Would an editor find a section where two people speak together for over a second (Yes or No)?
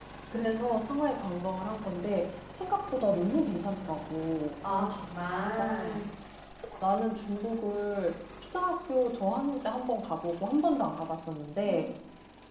No